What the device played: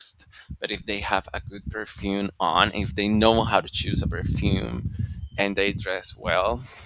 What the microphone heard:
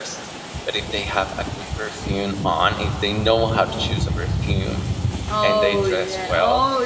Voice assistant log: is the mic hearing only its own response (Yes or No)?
No